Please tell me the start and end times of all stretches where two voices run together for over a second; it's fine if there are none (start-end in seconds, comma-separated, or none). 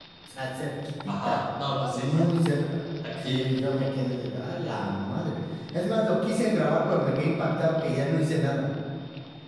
none